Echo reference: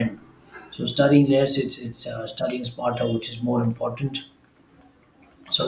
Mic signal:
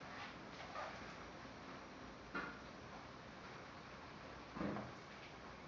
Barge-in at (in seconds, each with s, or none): none